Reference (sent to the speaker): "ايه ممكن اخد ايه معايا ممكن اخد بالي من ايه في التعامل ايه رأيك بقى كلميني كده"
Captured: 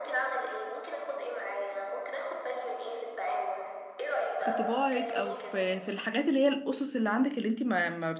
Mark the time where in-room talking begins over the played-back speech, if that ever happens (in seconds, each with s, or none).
4.4 s